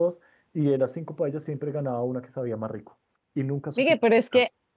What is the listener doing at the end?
taking over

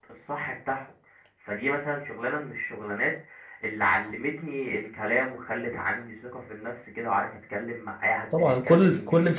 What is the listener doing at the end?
taking over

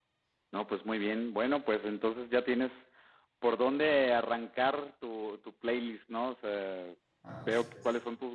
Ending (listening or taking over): listening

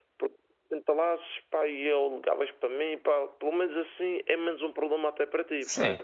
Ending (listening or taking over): taking over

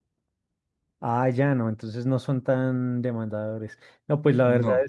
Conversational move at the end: listening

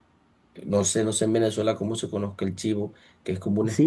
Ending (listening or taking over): taking over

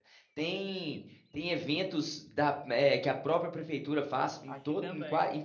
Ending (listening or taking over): listening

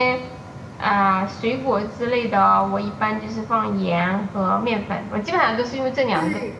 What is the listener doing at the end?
taking over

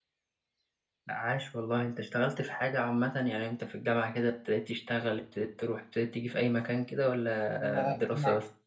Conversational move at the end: taking over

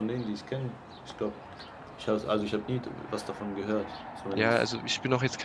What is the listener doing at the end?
taking over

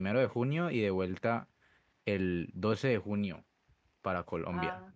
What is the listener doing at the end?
listening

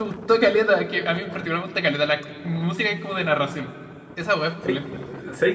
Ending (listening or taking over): taking over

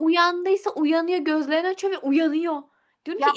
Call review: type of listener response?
listening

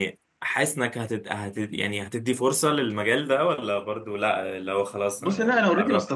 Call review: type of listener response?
taking over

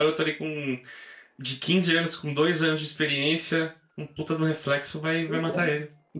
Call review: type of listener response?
taking over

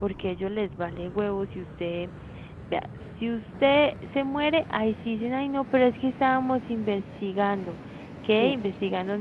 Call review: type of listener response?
listening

